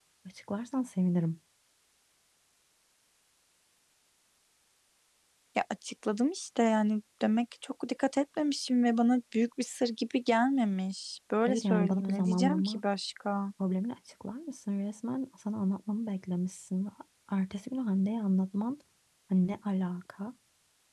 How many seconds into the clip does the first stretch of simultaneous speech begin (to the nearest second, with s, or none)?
11 s